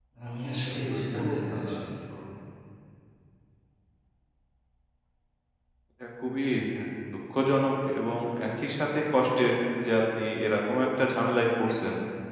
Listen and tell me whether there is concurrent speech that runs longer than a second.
Yes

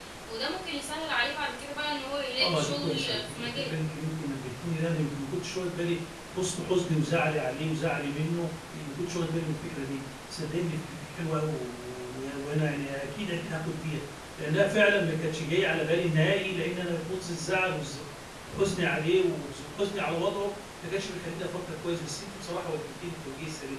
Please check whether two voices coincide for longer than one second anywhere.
Yes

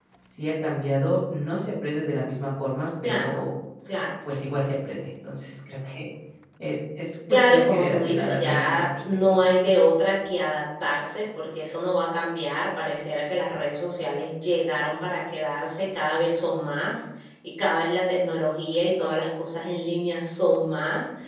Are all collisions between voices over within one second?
No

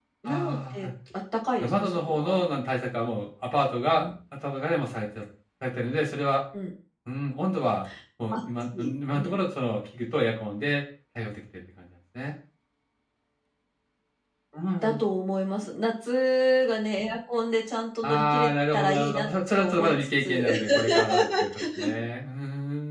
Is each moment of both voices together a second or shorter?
No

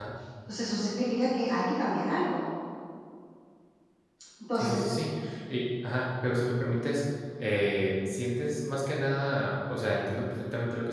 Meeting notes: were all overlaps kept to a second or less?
Yes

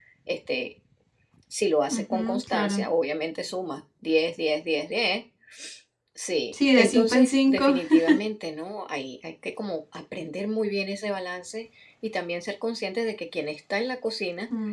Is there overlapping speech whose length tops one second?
Yes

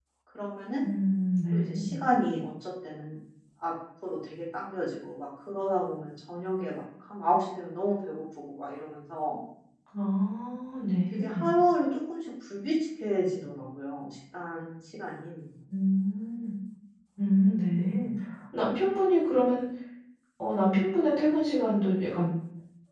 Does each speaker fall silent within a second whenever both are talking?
Yes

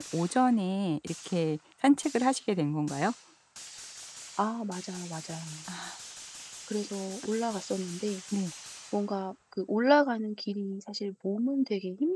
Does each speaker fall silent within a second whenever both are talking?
Yes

